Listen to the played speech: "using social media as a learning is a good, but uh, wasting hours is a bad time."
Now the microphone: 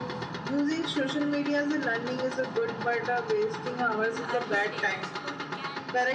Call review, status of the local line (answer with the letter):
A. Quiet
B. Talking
B